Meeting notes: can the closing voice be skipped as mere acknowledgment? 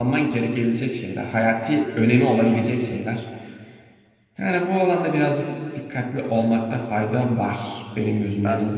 No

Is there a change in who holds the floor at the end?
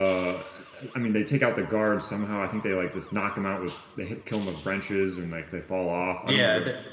Yes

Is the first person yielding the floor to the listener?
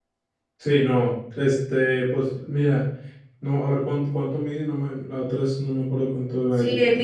Yes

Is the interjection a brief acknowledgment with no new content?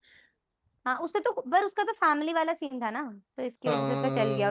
Yes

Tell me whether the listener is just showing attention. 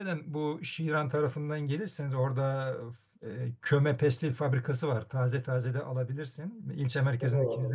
No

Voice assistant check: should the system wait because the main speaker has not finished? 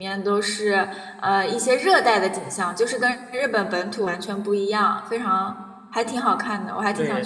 No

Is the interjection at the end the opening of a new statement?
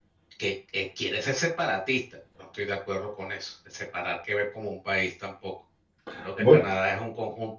No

